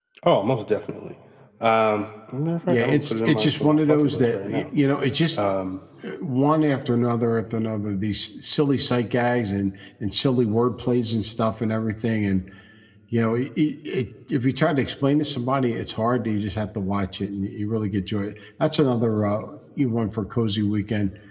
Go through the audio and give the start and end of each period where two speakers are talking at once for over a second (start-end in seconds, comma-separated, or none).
2.7-4.6